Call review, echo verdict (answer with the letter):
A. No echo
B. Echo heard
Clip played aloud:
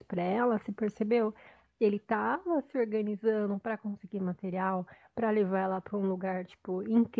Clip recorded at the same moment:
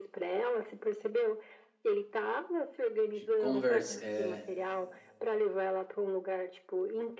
B